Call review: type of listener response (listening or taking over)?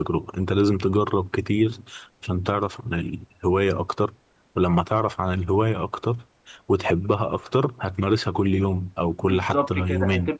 taking over